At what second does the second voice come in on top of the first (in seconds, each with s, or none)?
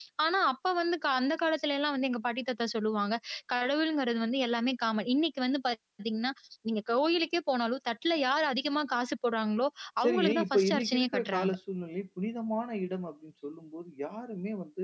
10.0 s